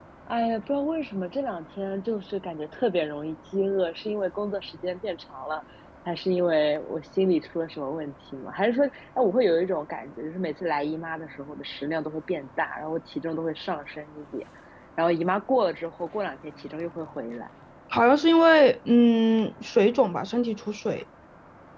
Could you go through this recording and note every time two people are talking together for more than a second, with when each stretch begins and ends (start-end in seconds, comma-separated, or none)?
none